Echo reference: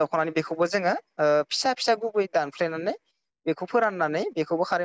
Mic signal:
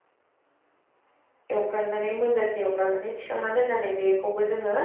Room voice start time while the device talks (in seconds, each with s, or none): 1.6 s